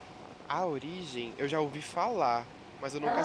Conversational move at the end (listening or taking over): taking over